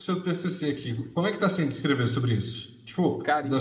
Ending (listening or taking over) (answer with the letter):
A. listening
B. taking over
A